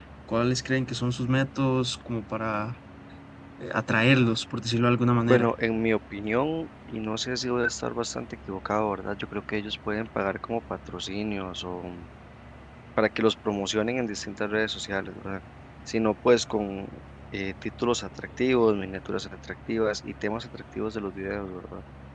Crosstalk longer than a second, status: none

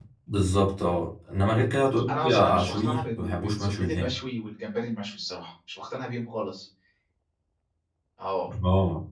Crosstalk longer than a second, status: present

